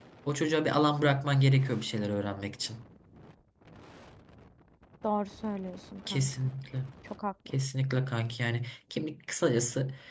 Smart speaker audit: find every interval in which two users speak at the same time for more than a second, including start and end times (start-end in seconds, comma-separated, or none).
none